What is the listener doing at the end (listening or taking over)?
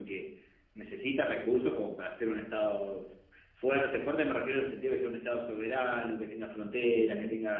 listening